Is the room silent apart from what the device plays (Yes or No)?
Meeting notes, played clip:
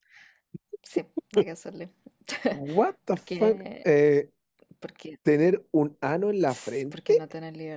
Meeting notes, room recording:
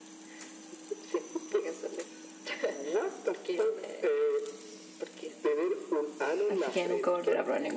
No